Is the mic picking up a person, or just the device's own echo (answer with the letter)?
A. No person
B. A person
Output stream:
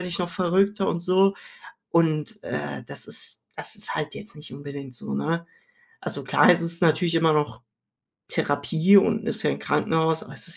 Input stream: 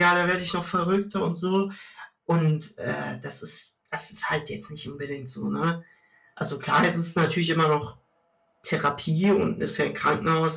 A